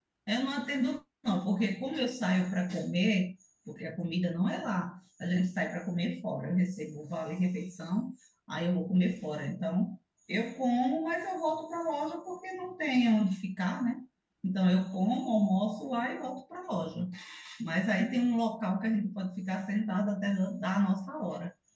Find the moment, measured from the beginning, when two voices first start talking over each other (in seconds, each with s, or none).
none